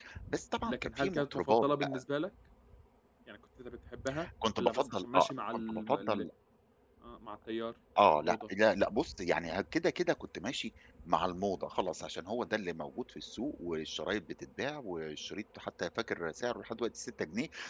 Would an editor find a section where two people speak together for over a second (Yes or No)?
Yes